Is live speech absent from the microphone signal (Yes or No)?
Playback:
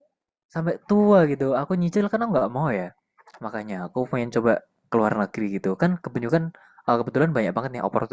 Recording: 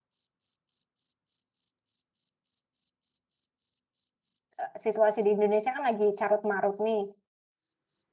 No